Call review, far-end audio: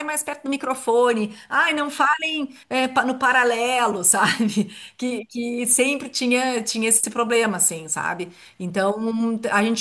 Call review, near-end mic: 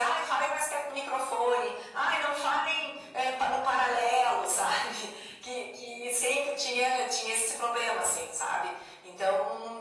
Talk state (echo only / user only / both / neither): echo only